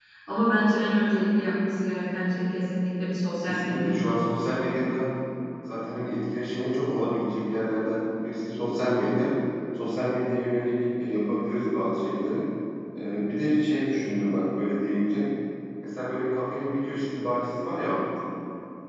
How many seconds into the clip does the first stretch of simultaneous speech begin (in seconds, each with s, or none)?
3.5 s